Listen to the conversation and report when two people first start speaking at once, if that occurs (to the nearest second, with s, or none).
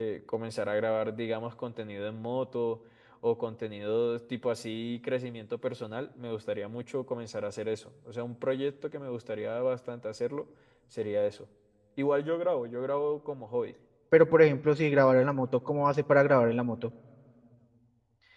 none